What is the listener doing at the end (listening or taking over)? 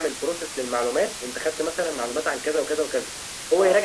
listening